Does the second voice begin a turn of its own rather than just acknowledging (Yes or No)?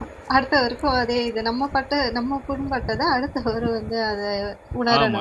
Yes